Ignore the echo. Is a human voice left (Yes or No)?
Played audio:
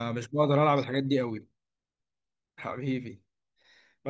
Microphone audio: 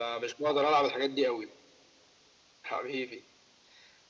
No